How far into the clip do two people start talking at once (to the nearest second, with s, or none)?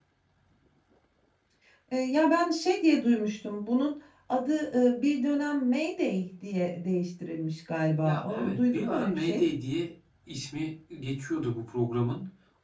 8 s